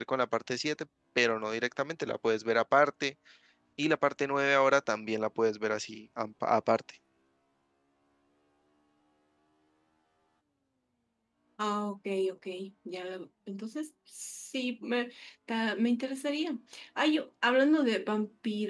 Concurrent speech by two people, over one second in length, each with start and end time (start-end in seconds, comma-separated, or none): none